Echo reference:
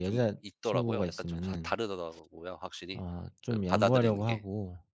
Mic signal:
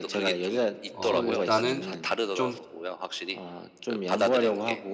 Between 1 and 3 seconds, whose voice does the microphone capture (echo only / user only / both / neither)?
both